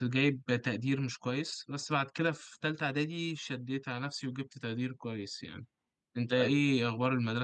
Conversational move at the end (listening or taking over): listening